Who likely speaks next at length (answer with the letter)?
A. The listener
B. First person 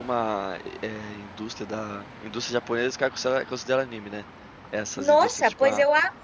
A